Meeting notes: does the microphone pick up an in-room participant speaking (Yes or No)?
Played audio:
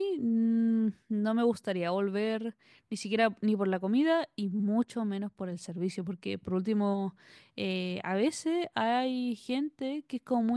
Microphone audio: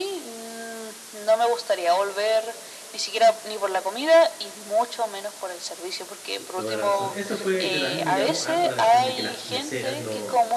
Yes